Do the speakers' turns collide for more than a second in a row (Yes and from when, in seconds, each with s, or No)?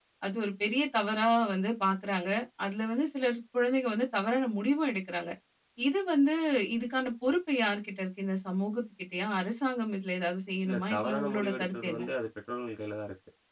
Yes, from 10.6 s